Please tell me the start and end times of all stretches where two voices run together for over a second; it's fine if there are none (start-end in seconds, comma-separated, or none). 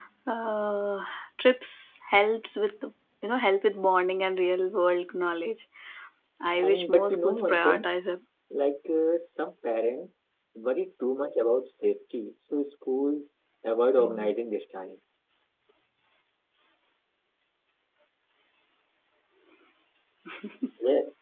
6.6-7.9